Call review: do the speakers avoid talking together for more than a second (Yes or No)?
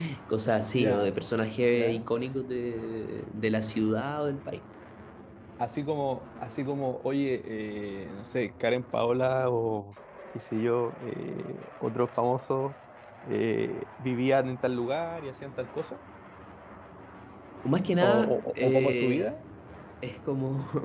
No